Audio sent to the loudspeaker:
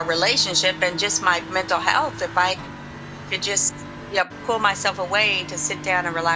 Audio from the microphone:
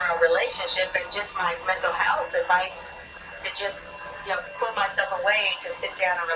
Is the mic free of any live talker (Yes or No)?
Yes